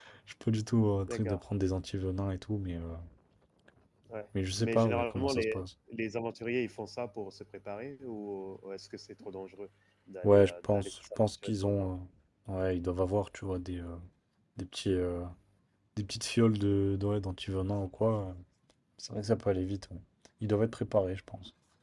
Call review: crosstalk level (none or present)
present